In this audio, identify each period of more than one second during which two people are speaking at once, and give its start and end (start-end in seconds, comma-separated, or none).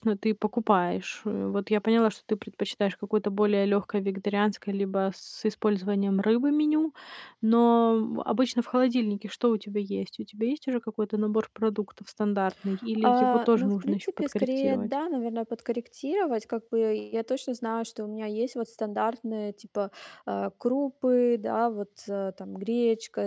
13.0-14.9